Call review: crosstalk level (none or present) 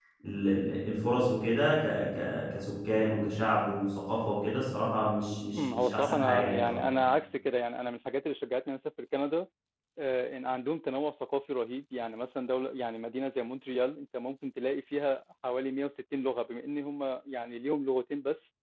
present